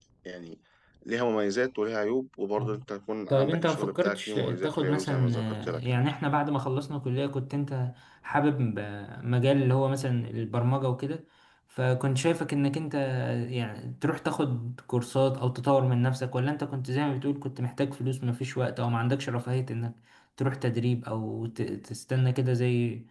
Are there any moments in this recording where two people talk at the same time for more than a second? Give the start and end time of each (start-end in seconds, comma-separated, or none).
3.3-5.9